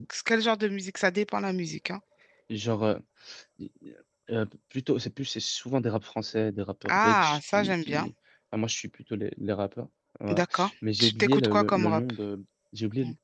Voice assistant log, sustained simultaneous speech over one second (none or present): present